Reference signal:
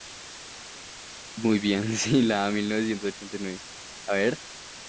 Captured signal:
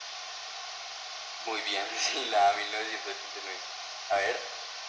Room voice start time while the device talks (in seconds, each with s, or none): none